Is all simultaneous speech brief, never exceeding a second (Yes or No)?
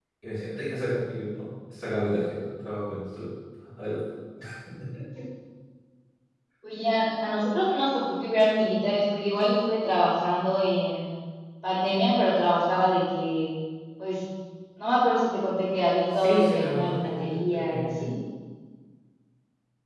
No